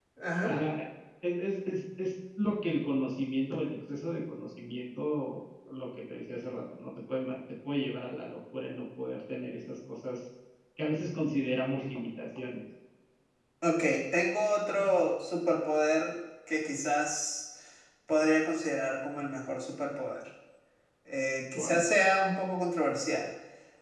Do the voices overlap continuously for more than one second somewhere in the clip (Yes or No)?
No